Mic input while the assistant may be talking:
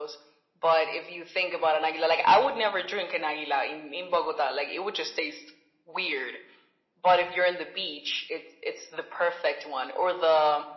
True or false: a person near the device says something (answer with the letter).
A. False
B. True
A